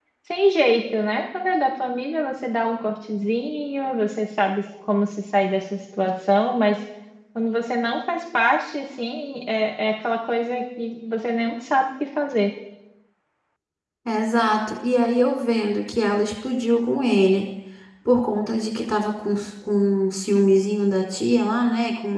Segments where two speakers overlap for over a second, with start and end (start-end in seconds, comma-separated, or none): none